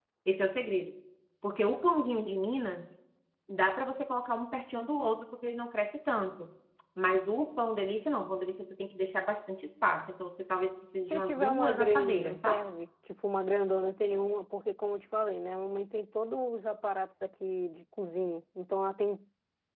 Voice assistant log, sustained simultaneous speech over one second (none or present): present